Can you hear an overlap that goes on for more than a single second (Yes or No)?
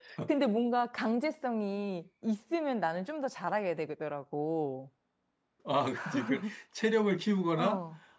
No